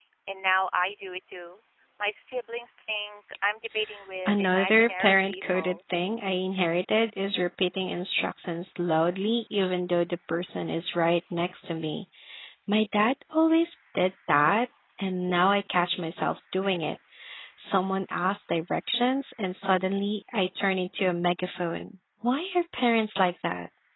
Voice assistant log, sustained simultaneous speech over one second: present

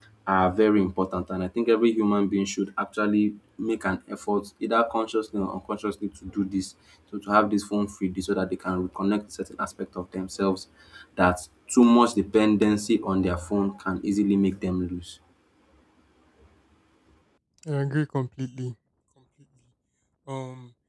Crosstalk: none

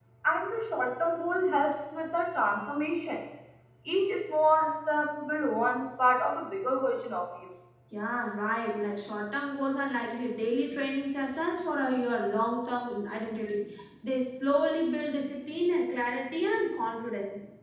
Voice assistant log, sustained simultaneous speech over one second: none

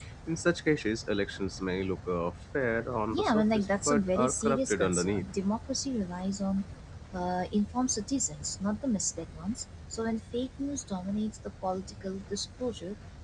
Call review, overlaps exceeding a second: present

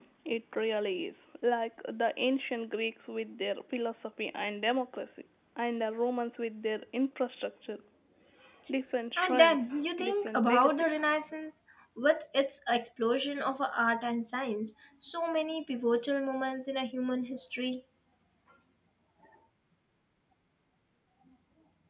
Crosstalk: present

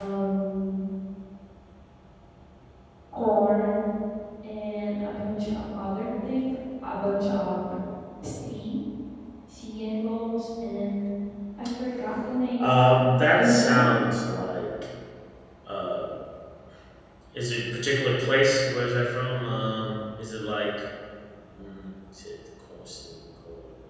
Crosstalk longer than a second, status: none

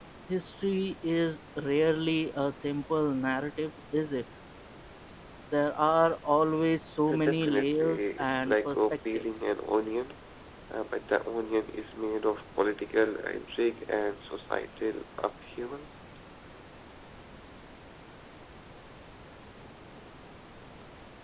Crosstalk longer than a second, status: present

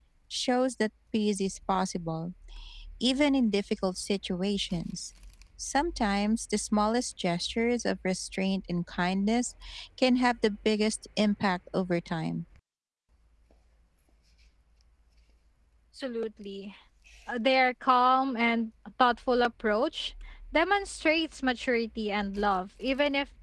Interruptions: none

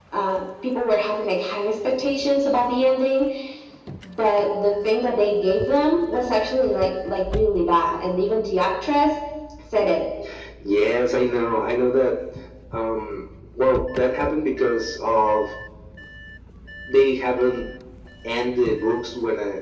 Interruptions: none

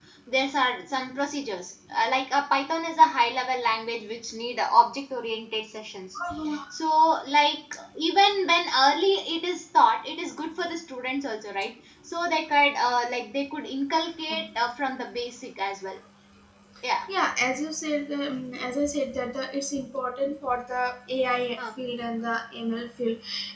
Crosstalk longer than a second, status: none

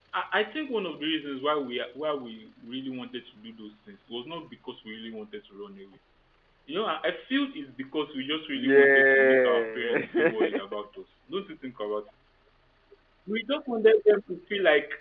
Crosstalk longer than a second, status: present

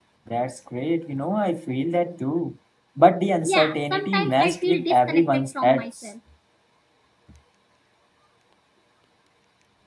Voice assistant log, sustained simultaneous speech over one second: present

